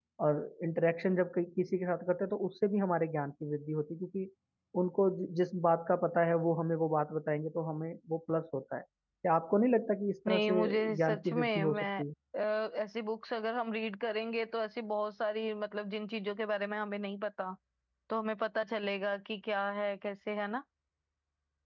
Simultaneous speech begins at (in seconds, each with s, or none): 10.2 s